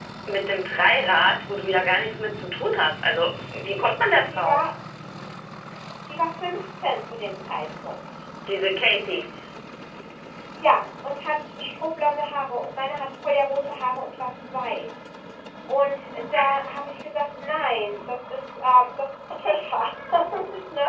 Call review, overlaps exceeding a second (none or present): none